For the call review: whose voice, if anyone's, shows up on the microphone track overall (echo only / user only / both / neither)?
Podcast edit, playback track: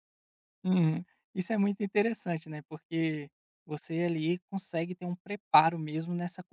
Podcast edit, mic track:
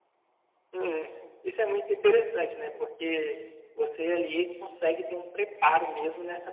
echo only